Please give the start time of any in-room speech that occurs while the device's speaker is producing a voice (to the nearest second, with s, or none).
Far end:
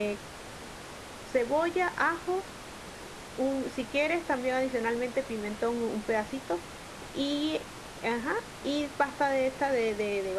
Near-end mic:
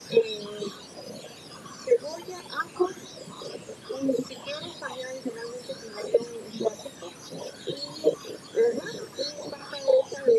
none